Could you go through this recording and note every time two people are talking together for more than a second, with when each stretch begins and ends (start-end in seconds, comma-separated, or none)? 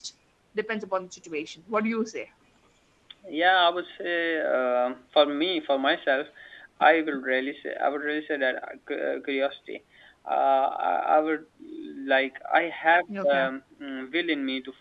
none